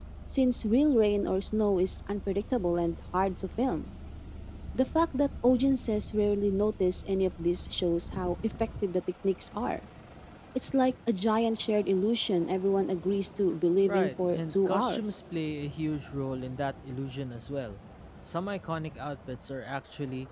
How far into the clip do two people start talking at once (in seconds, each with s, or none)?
13.9 s